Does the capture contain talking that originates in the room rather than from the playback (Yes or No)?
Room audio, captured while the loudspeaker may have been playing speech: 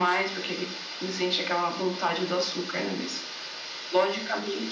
No